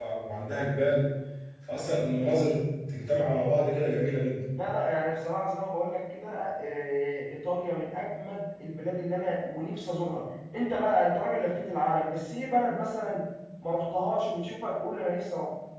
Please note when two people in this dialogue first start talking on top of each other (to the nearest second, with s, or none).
none